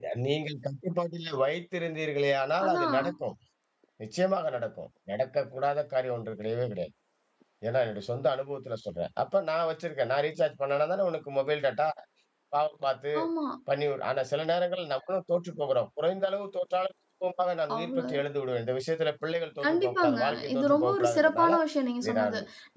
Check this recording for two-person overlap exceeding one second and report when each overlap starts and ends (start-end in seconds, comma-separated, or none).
19.6-21.5